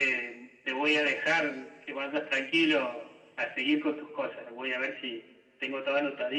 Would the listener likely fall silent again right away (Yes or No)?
Yes